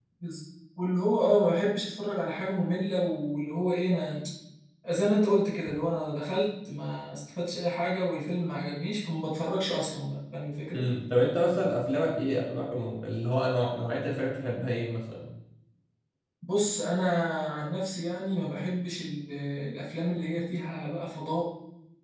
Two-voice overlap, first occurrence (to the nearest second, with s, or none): none